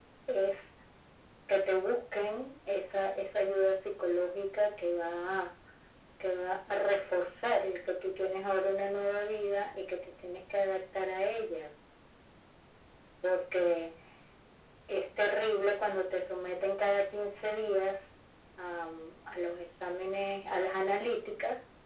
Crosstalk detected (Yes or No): No